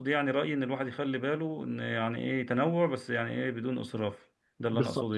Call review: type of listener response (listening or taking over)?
taking over